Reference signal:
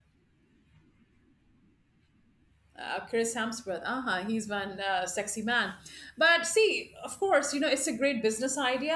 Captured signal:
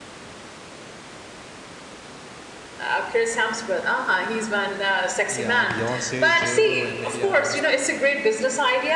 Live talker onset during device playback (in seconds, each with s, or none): 5.3 s